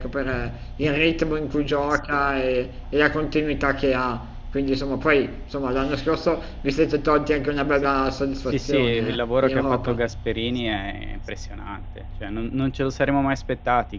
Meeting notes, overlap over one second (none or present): present